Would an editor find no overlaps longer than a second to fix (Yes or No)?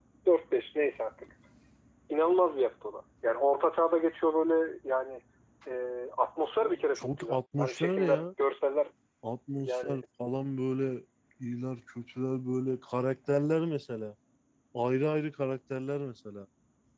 No